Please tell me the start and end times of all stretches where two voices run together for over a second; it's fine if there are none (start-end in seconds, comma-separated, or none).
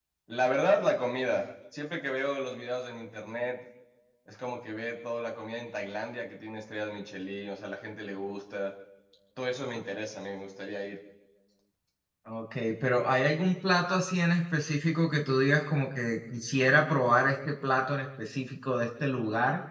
none